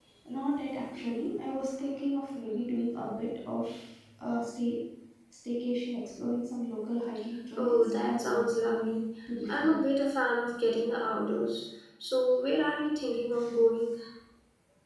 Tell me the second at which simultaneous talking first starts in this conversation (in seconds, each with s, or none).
7.6 s